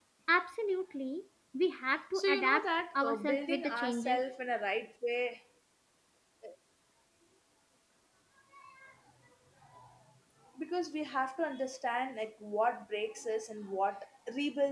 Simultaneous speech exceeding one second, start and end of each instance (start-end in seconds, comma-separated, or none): 2.1-4.2